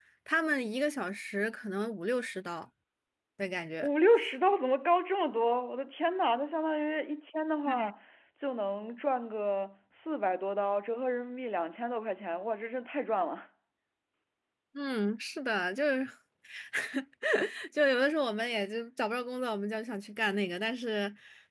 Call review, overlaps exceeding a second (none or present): none